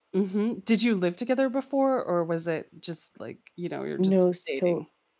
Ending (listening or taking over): taking over